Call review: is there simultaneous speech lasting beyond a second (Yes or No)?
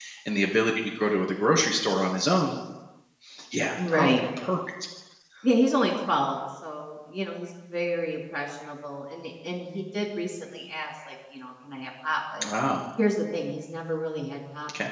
No